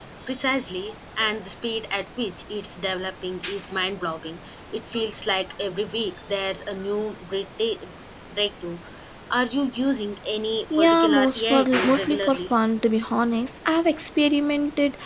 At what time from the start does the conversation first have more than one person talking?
10.7 s

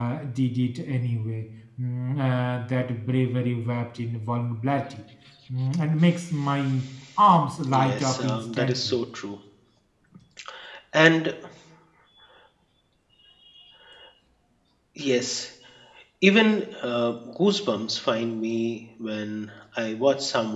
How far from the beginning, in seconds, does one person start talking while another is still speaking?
7.6 s

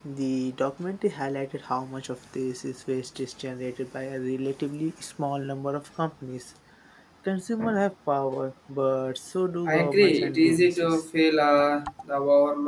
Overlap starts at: 9.7 s

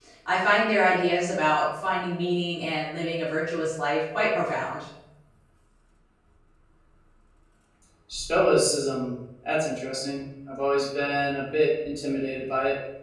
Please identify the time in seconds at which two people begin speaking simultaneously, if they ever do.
none

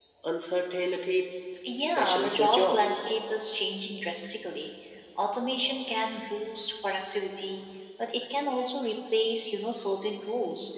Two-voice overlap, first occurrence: 1.6 s

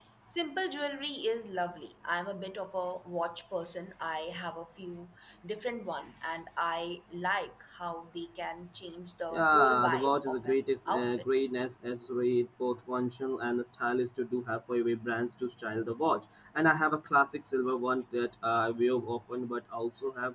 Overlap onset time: 9.3 s

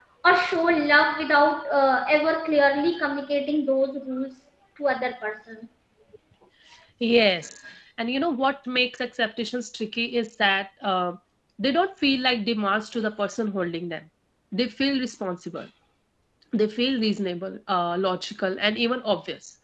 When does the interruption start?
none

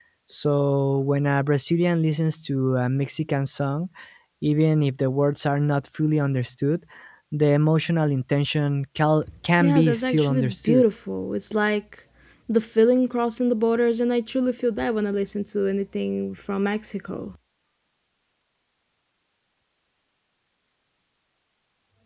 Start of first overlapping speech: 9.6 s

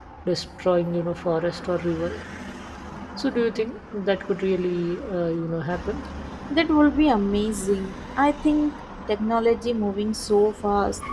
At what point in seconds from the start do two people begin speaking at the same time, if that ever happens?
none

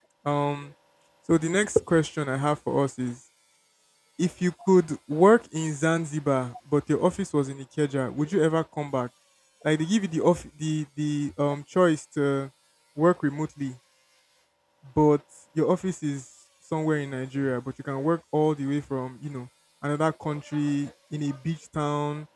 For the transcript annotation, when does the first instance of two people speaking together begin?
none

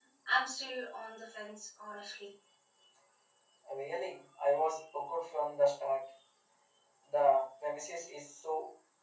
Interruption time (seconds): none

